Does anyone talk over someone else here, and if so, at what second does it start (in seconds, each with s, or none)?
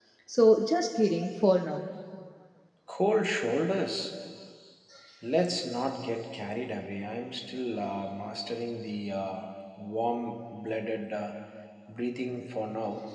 none